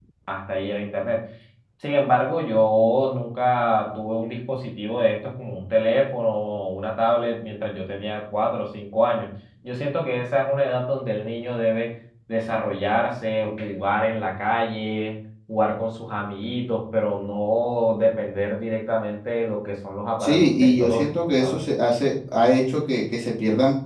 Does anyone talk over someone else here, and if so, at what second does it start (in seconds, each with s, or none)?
20.2 s